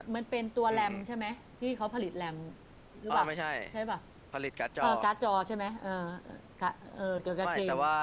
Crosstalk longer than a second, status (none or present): none